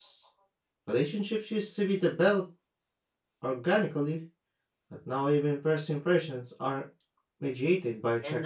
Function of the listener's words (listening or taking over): taking over